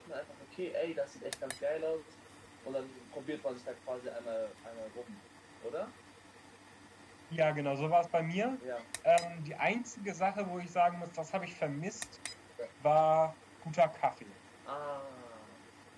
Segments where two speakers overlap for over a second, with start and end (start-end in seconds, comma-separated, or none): none